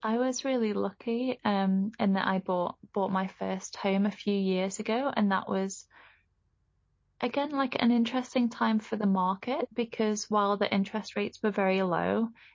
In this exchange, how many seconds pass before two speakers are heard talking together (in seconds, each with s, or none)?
none